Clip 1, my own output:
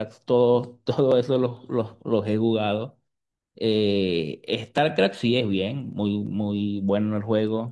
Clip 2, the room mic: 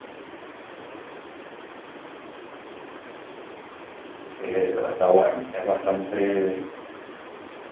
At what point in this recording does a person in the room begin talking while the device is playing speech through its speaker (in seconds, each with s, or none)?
4.4 s